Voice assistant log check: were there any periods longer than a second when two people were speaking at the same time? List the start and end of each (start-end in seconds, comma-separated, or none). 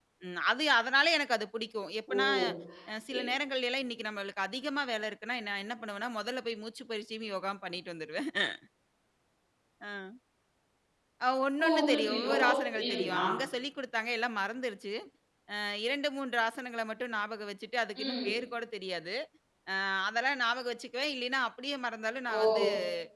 11.7-13.2